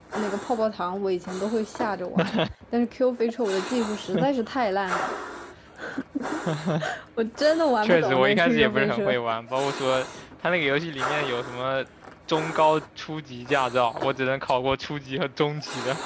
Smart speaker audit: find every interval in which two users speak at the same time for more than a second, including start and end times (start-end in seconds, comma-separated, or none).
7.8-9.2